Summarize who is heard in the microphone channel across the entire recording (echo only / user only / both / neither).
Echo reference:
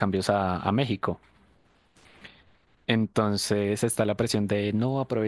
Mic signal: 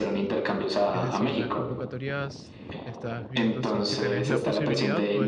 both